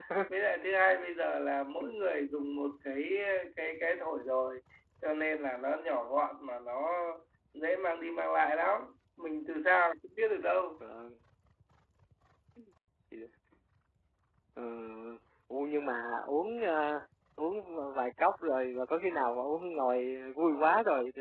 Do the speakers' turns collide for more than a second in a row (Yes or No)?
No